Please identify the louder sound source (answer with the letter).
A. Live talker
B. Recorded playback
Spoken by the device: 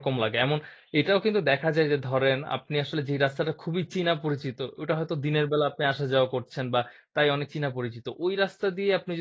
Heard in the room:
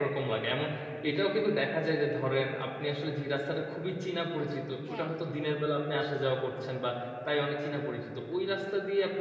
B